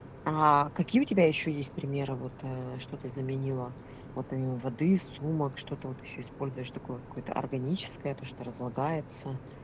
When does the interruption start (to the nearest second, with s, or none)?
none